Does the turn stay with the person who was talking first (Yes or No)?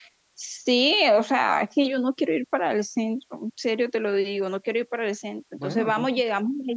Yes